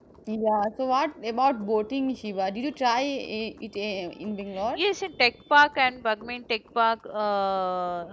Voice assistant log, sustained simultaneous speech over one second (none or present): none